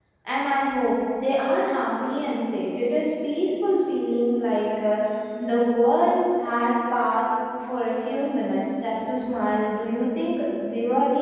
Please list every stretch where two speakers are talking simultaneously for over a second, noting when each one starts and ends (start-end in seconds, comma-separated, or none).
none